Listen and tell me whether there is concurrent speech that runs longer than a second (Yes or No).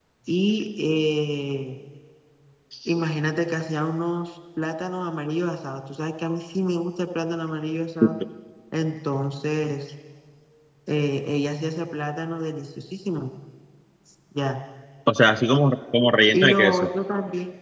No